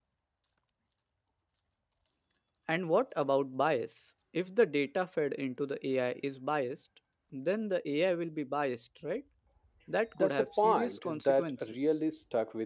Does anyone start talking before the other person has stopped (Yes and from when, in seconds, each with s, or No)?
Yes, from 10.2 s